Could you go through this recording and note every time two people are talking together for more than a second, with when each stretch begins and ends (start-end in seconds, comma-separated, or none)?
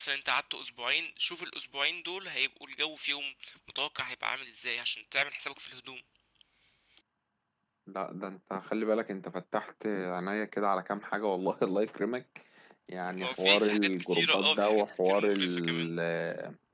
13.2-15.9